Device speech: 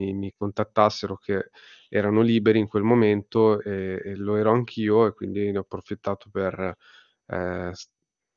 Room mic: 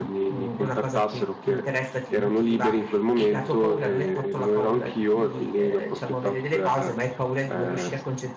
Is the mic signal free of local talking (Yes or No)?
No